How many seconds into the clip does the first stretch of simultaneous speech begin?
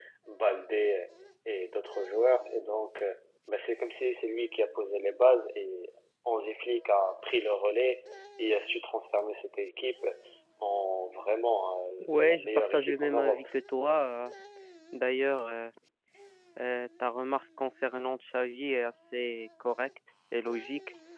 12 s

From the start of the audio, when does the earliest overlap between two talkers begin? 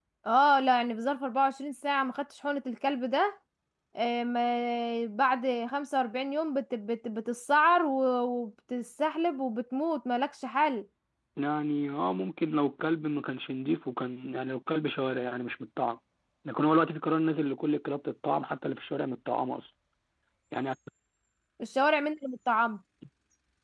none

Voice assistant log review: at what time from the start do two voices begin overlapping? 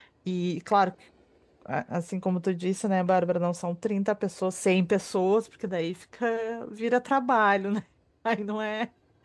none

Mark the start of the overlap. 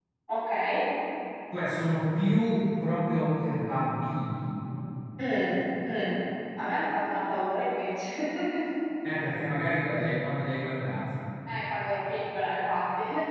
none

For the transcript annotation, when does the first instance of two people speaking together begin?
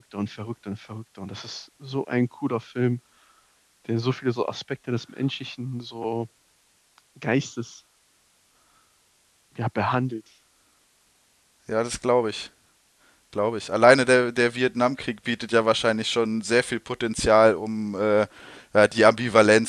none

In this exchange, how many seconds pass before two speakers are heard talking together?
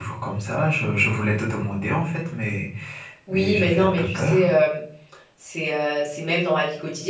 3 s

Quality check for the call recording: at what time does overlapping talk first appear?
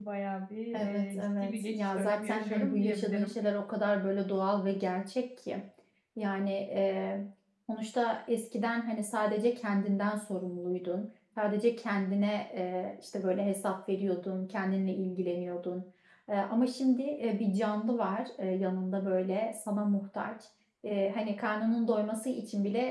1 s

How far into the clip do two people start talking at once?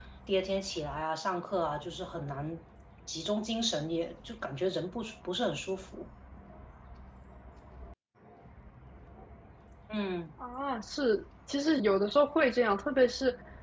none

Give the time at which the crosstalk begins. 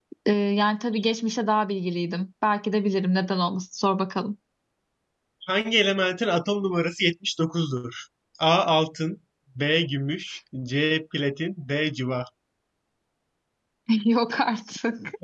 none

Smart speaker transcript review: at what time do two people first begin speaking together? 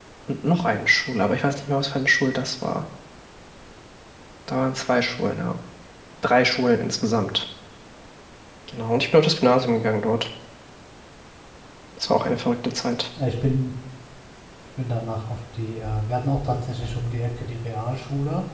none

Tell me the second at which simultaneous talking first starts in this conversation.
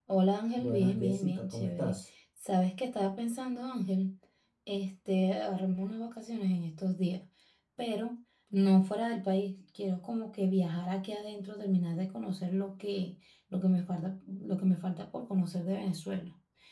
1 s

